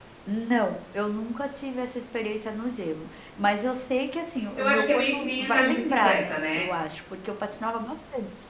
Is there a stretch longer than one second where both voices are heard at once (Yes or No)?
Yes